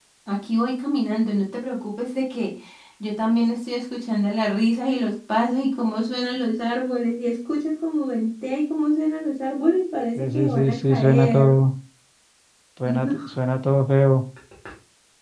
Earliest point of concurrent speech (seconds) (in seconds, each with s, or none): 10.2 s